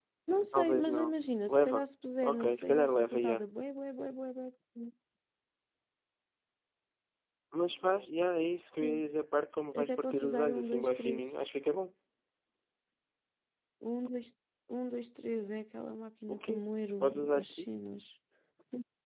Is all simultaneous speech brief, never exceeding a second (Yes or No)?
No